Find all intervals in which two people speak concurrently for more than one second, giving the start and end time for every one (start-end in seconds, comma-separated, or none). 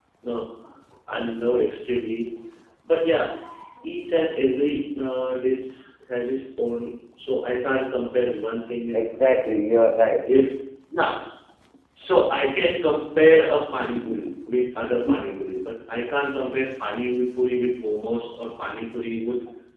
none